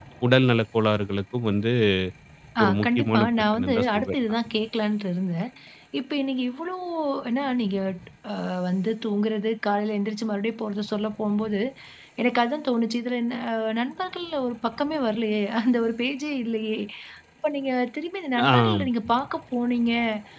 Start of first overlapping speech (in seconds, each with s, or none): 2.6 s